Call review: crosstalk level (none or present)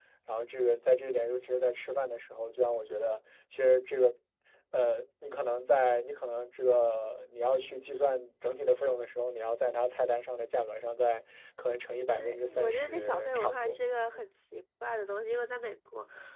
present